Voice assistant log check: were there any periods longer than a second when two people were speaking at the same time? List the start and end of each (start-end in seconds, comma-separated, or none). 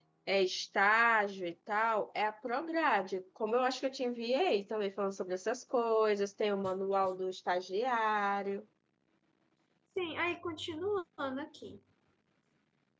none